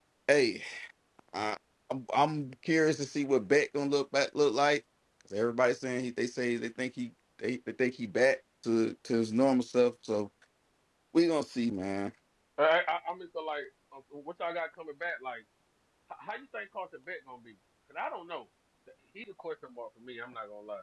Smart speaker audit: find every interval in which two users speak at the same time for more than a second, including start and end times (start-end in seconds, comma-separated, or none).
none